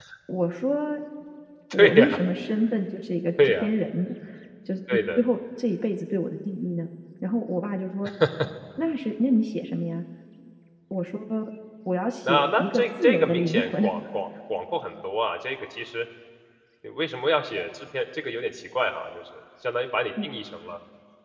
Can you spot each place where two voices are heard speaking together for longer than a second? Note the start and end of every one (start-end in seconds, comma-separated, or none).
12.3-13.9